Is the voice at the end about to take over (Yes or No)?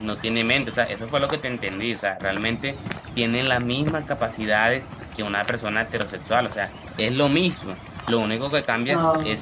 No